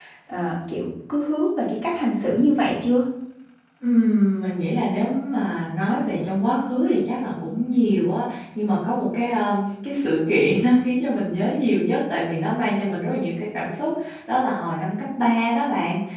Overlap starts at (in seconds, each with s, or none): none